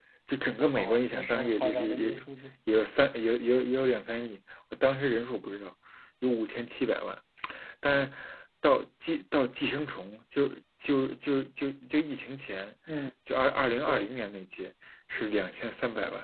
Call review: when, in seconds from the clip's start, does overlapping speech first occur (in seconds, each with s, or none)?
0.7 s